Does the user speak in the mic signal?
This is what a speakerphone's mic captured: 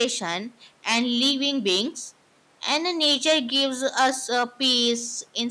Yes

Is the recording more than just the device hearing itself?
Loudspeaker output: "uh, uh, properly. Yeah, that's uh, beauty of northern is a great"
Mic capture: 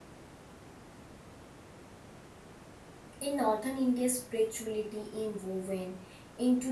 Yes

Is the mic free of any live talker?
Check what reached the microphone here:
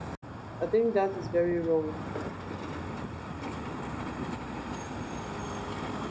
No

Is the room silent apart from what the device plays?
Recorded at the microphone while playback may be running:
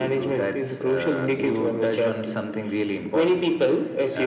Yes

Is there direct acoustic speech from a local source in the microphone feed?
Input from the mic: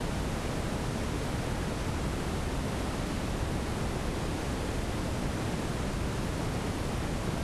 No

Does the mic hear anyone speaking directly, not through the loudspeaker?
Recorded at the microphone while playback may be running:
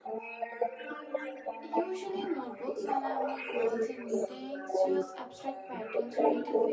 Yes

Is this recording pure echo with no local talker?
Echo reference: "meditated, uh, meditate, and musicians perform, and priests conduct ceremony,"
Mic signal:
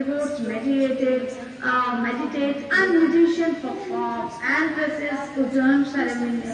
No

